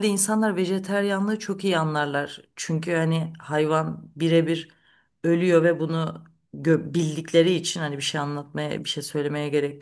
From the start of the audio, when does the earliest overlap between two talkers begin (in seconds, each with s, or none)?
none